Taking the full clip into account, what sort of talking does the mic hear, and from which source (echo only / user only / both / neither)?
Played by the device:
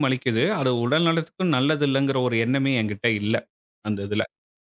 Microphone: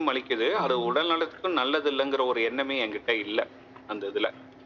both